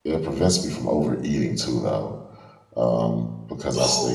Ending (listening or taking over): taking over